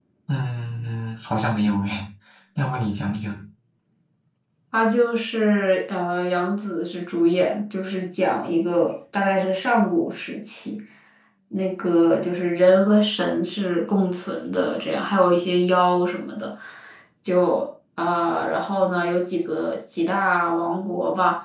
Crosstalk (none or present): none